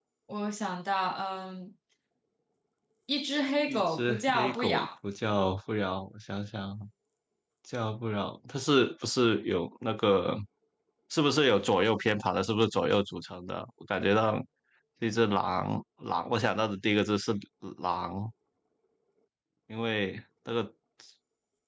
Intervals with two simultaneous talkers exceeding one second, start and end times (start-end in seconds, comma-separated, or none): 3.7-4.9